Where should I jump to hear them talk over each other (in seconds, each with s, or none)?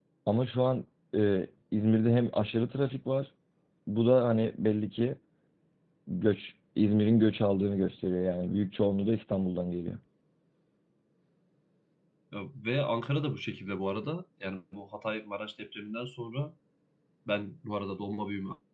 none